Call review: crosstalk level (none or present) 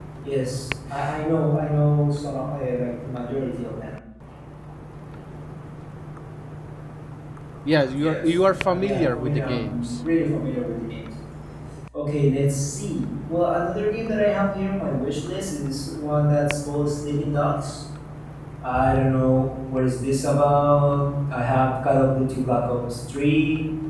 present